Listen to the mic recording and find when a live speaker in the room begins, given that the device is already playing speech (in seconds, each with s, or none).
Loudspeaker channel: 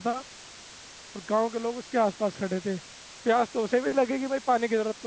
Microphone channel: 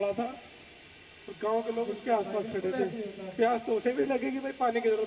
1.8 s